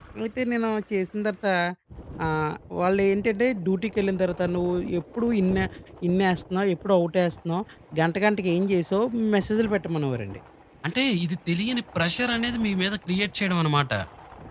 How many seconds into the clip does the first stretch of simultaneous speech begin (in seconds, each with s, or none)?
none